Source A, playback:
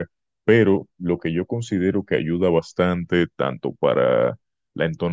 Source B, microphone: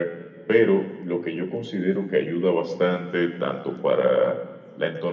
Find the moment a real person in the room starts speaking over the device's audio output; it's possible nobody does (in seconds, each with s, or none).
none